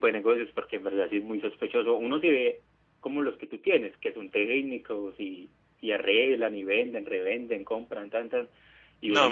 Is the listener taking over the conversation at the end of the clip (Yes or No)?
Yes